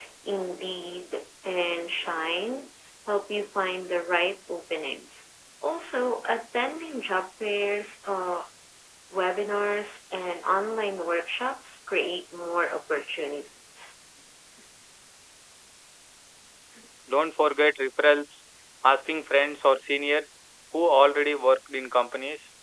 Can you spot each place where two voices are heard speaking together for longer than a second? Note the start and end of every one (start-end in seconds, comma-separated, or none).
none